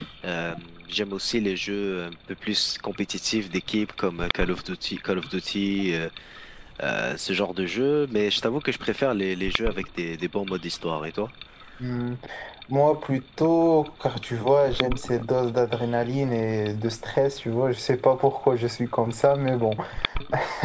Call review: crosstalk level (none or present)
none